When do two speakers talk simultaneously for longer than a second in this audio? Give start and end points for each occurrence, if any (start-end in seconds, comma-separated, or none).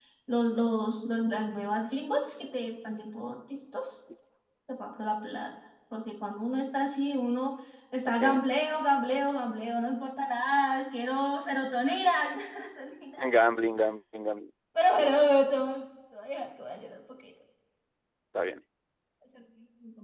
none